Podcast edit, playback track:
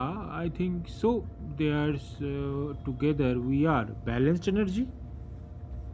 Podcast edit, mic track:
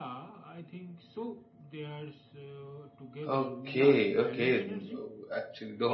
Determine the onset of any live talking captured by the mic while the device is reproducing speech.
3.3 s

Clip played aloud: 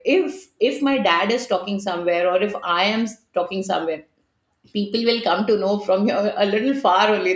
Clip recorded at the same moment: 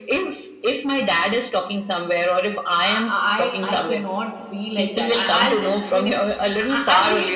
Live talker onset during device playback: 2.9 s

